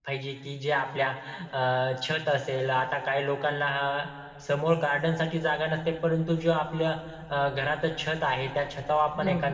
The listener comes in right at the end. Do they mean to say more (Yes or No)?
No